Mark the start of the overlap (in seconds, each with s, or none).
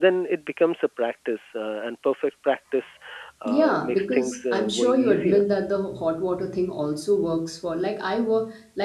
3.5 s